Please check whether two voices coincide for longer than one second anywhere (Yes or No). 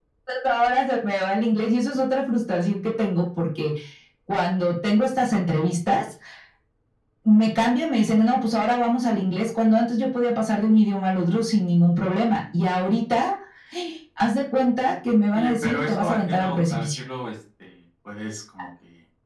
Yes